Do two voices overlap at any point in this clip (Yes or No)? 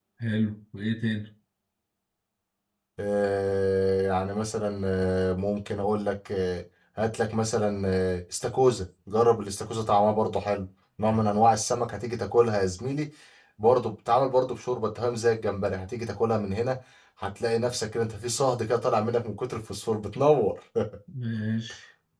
No